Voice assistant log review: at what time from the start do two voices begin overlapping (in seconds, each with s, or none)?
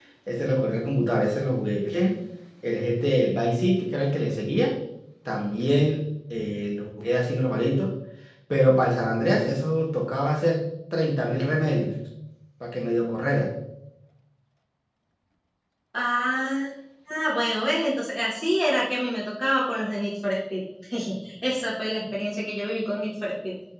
none